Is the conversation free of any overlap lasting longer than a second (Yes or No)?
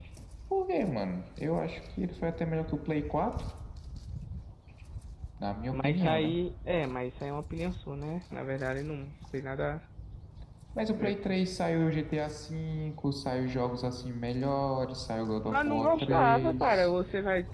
No